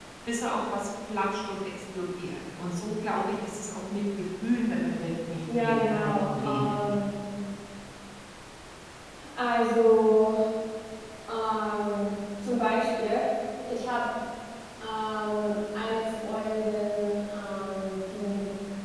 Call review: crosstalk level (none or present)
present